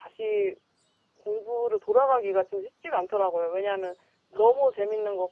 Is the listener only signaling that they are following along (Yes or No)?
Yes